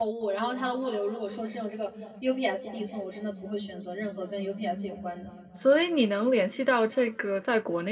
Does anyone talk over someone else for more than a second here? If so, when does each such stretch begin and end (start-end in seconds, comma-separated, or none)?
none